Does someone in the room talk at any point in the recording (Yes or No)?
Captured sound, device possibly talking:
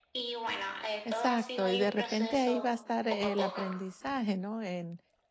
Yes